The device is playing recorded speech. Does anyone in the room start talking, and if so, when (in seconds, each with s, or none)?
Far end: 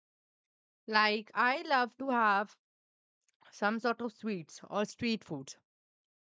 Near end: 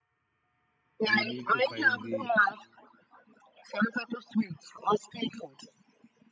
1.2 s